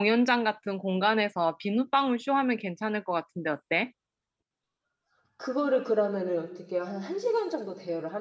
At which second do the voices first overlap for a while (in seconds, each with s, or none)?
none